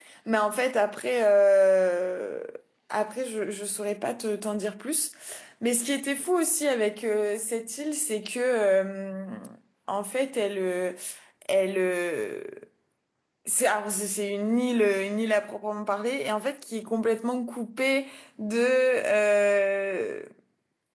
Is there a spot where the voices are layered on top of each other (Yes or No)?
No